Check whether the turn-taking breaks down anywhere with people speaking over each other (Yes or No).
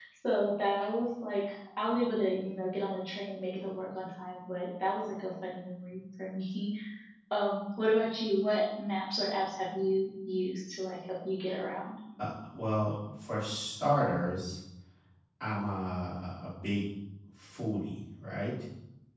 No